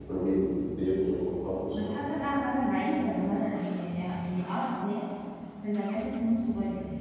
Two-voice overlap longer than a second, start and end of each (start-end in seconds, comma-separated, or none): none